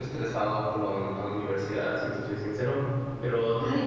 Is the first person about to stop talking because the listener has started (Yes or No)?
Yes